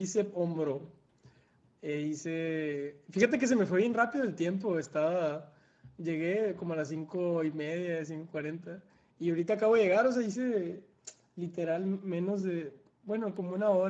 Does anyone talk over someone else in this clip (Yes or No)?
No